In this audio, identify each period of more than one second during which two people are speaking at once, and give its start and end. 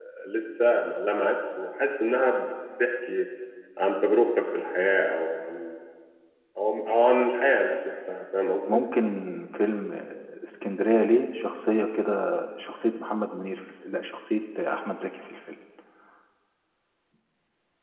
none

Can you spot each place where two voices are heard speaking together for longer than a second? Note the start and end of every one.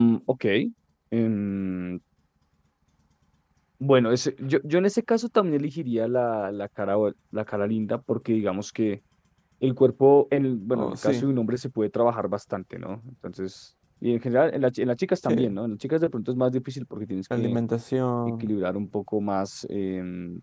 none

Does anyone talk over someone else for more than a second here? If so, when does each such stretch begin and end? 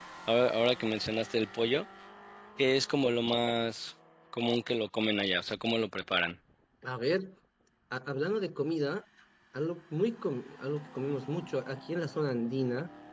none

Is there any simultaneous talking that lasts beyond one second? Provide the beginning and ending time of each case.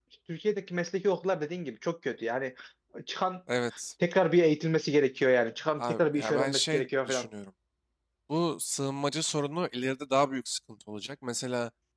5.8-7.3

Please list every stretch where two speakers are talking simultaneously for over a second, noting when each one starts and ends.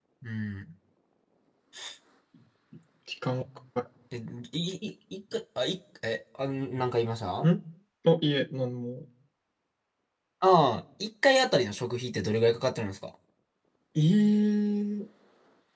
none

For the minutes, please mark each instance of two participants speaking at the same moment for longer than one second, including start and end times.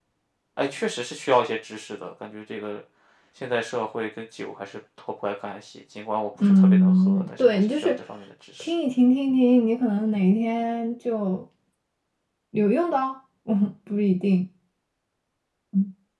6.4-8.0

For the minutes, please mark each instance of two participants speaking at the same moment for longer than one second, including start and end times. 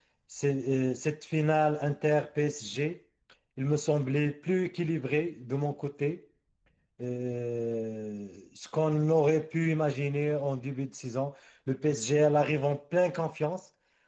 none

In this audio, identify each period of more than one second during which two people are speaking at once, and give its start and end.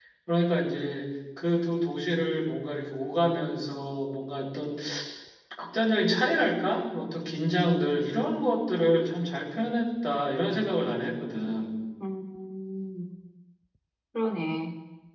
none

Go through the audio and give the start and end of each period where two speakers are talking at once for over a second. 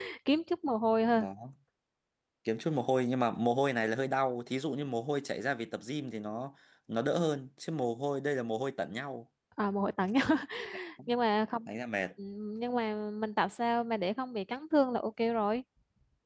none

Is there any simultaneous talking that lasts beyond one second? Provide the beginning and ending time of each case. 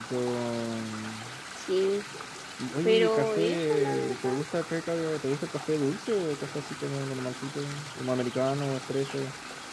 2.8-4.4

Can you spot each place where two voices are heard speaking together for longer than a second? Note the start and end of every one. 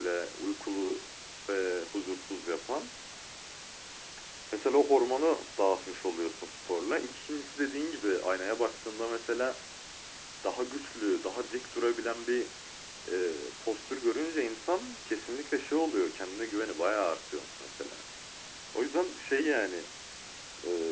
none

